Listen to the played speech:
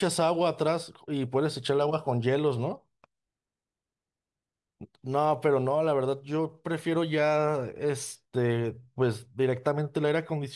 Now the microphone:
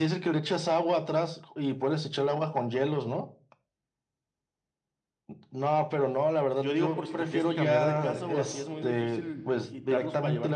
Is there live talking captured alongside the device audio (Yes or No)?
Yes